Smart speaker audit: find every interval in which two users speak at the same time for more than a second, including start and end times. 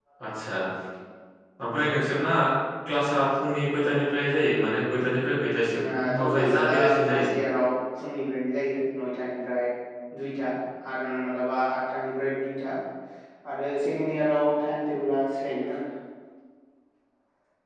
5.7-7.2

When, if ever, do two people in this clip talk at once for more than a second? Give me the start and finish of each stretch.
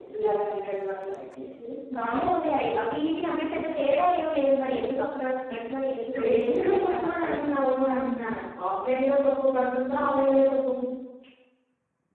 6.4-7.6

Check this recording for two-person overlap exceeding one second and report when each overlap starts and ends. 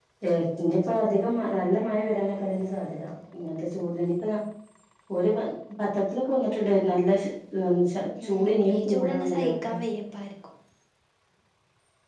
8.2-9.7

